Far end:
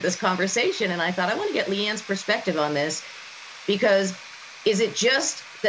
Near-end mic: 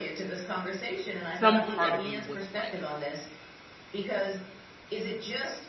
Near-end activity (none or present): present